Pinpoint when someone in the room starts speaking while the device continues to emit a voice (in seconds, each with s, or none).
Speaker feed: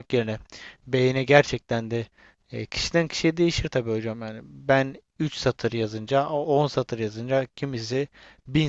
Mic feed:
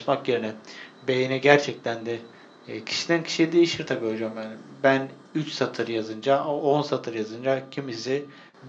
none